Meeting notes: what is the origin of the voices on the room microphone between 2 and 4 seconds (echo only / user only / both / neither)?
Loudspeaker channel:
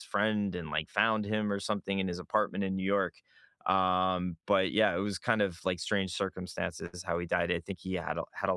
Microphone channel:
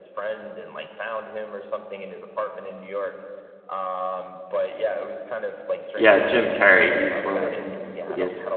echo only